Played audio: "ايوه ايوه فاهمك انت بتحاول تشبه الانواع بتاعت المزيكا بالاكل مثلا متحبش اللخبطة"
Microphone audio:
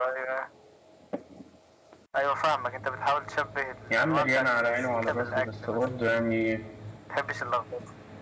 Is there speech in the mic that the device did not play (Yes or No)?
Yes